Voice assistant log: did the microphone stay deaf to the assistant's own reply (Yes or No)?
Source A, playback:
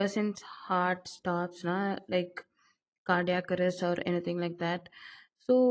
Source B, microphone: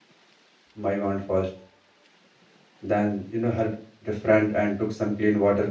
Yes